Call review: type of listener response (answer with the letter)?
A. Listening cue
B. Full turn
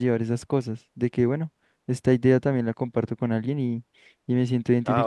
B